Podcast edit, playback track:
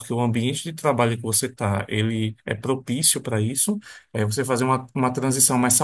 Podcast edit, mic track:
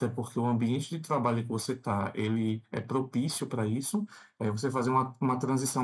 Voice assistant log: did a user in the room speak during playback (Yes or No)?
No